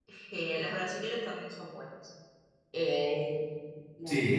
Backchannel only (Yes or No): Yes